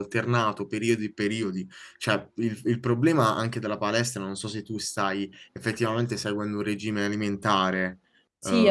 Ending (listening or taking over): taking over